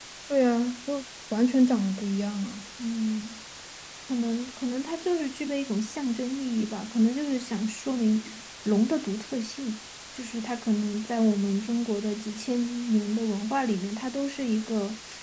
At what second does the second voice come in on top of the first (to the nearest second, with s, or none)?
none